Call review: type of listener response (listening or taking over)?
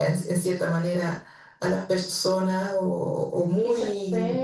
taking over